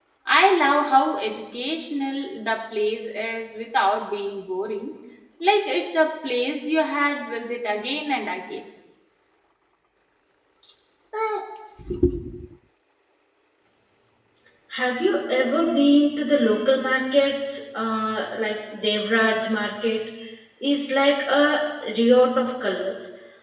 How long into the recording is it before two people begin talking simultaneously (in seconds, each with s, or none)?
none